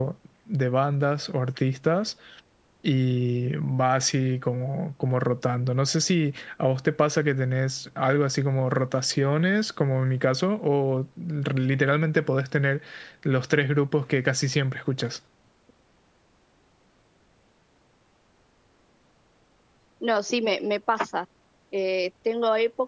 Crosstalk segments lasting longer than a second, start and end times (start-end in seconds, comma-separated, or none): none